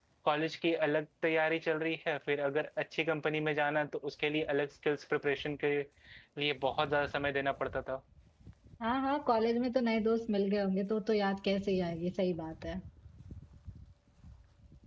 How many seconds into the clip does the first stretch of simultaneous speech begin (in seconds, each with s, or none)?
none